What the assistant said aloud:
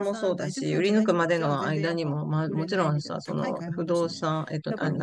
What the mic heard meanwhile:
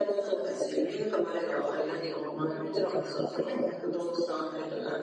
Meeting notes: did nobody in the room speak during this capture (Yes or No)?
Yes